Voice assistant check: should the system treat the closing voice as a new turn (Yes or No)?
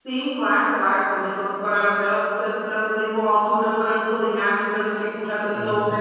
No